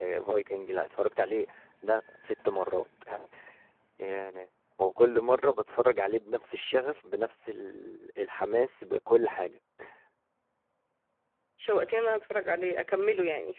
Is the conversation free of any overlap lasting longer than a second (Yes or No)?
Yes